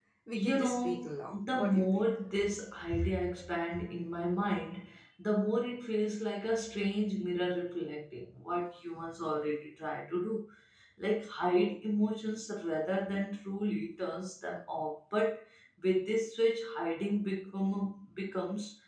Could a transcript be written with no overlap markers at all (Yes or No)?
No